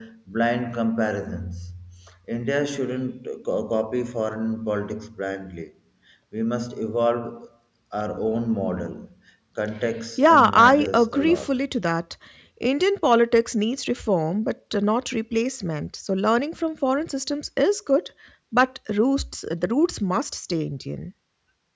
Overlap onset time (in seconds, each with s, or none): 10.2 s